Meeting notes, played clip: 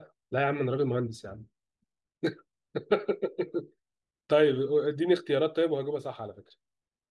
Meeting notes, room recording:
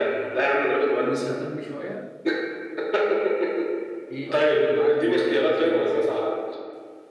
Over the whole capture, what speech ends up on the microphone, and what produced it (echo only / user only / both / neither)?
both